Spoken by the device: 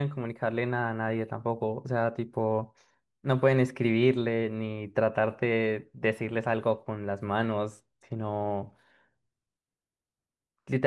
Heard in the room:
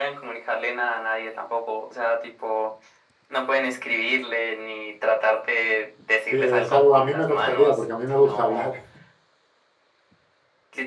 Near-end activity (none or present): present